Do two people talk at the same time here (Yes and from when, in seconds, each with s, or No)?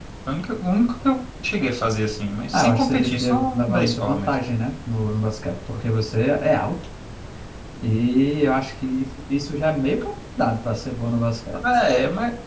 Yes, from 2.5 s